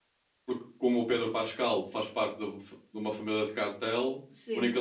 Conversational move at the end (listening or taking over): listening